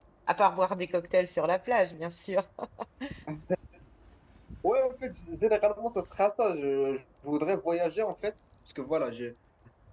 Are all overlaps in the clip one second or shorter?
Yes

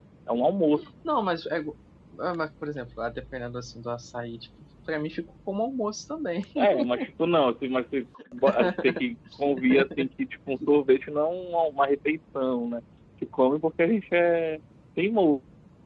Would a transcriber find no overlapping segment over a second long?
Yes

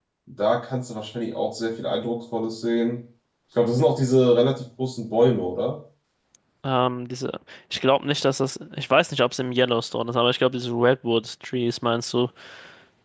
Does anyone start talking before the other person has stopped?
No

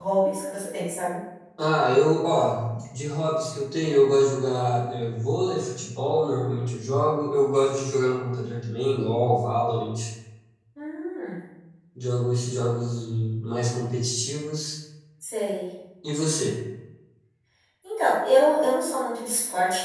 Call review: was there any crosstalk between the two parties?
No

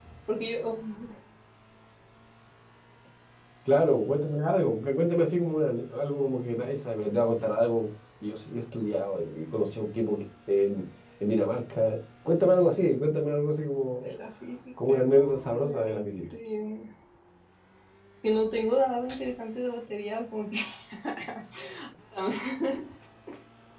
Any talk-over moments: Yes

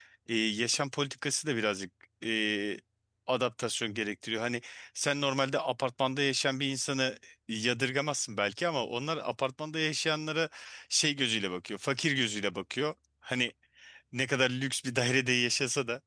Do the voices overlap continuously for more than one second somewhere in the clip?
No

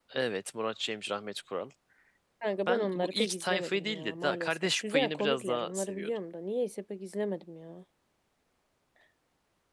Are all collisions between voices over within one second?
No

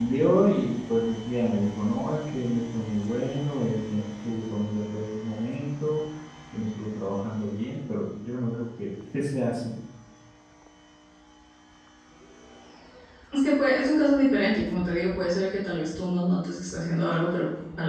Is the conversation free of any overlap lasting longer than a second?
Yes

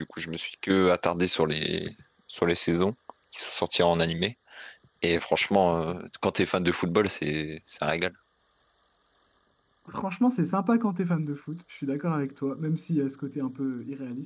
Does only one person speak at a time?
Yes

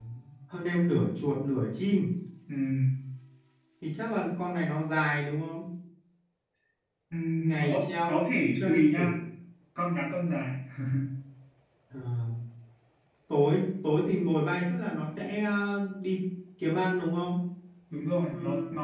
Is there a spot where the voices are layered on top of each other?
Yes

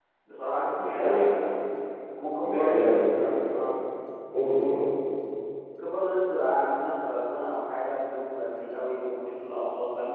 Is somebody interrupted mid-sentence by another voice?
Yes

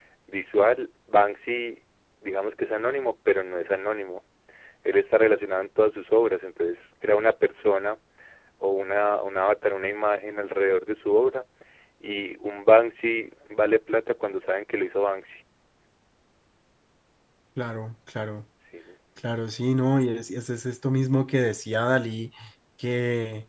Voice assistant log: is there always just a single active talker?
Yes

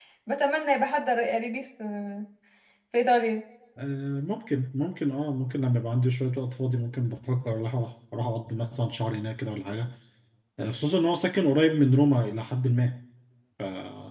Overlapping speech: No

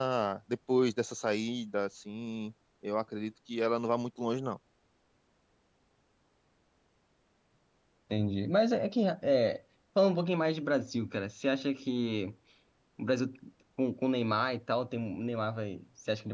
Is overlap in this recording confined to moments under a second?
Yes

